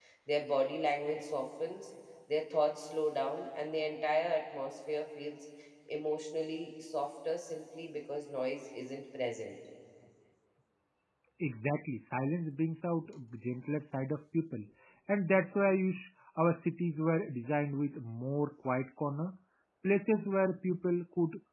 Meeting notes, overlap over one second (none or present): none